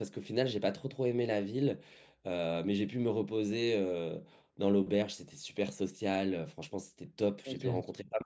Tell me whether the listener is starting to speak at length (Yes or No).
No